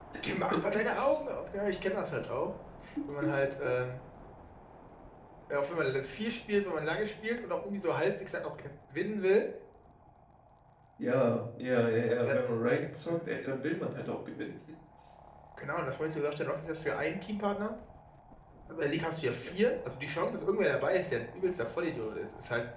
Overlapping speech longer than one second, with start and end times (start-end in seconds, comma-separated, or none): none